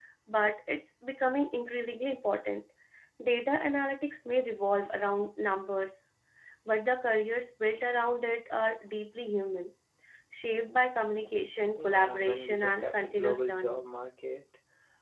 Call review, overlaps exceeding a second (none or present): present